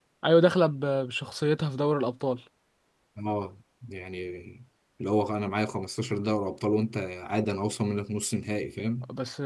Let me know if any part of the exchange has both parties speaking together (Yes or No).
No